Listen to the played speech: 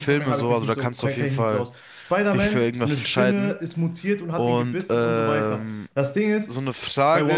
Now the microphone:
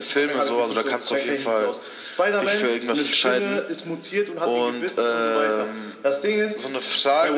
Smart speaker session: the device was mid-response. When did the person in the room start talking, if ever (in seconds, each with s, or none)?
none